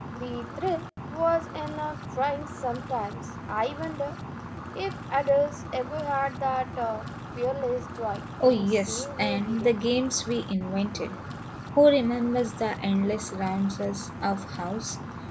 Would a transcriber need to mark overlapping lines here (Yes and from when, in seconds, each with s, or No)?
Yes, from 8.4 s